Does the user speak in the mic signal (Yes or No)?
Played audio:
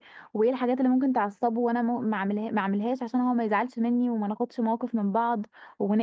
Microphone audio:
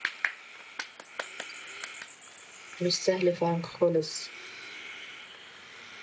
Yes